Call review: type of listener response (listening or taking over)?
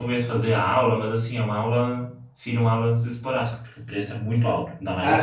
taking over